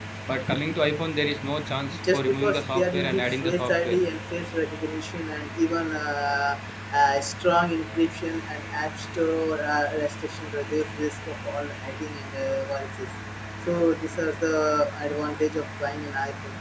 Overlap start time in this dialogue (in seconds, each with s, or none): 2.0 s